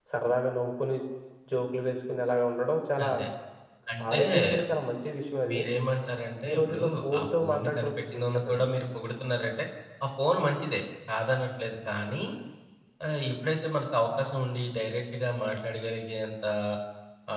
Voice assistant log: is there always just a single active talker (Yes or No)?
No